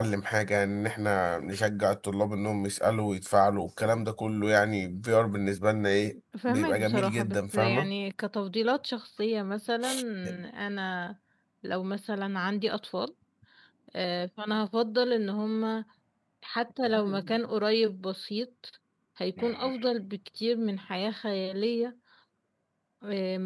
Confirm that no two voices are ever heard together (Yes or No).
No